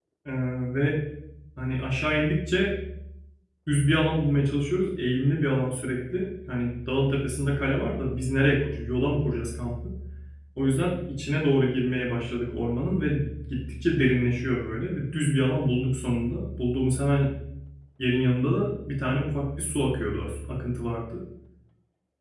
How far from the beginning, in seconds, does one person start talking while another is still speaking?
none

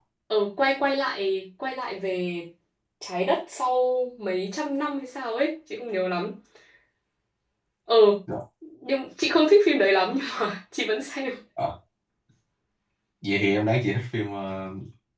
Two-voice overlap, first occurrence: none

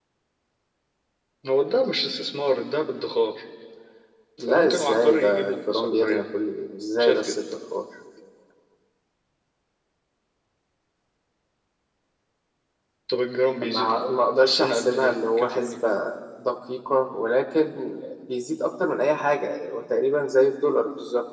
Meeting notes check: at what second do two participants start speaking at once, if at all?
4.5 s

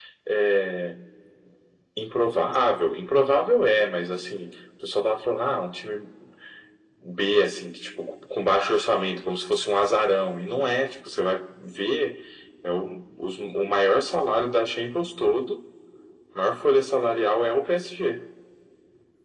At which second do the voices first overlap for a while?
none

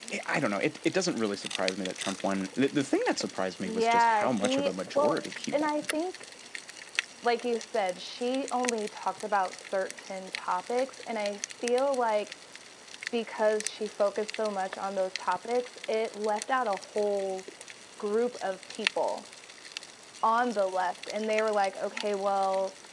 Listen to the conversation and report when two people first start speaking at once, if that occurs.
3.6 s

